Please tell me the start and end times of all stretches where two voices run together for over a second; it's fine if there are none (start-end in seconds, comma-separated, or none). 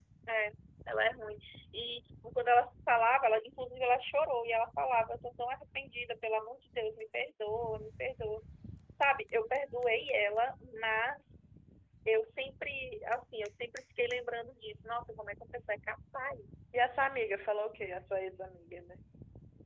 none